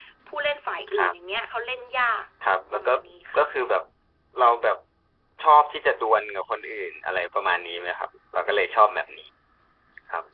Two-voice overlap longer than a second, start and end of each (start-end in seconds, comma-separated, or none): none